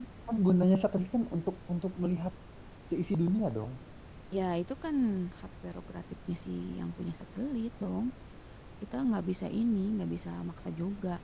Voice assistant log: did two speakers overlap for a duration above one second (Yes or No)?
No